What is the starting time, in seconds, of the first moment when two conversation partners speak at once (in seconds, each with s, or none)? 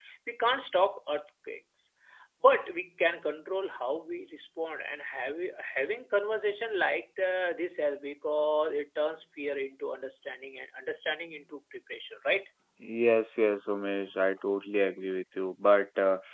none